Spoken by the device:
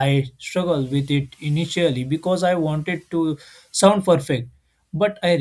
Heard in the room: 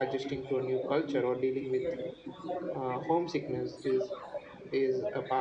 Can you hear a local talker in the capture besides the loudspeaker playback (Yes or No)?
Yes